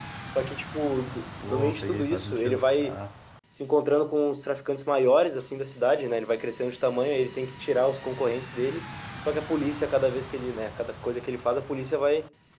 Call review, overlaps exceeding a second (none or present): present